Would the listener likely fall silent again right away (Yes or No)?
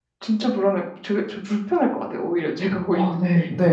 No